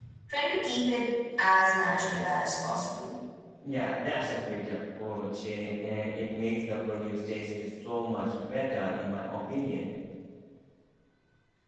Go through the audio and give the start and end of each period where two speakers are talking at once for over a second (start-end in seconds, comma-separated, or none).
none